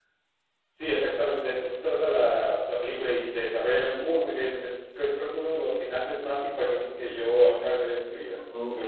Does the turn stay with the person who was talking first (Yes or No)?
No